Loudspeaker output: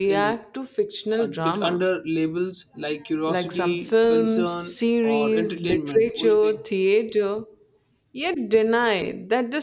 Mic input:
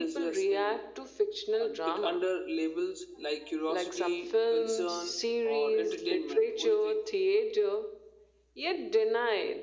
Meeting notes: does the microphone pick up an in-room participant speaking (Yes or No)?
No